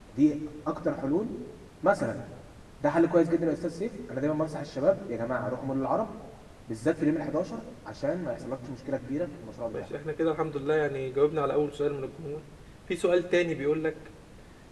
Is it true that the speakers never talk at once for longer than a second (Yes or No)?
Yes